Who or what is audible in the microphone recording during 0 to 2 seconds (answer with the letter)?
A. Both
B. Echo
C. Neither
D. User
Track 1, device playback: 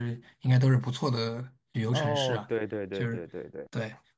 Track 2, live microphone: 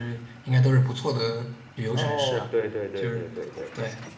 B